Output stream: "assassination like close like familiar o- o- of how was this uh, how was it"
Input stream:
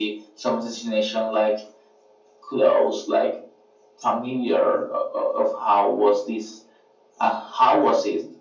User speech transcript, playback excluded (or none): none